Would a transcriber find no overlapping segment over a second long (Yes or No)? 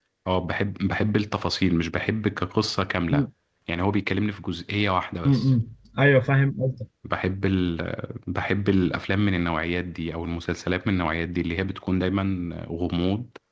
Yes